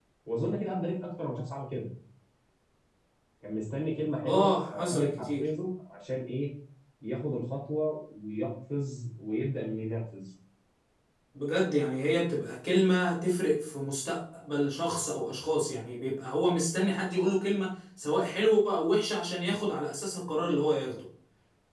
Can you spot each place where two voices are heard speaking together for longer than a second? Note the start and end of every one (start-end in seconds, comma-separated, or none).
4.2-5.5